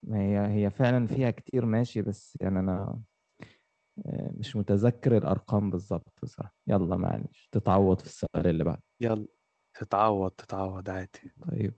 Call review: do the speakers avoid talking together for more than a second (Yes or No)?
Yes